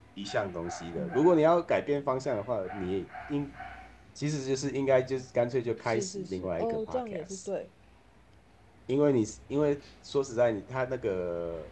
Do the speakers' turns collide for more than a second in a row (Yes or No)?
Yes